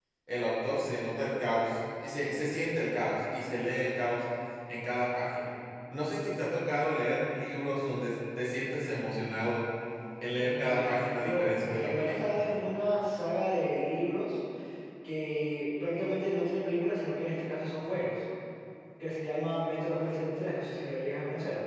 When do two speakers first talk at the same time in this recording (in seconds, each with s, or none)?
10.4 s